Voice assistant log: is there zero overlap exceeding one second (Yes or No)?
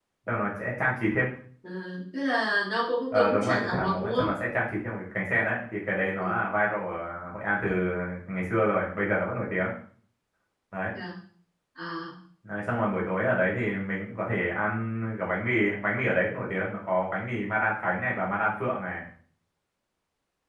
No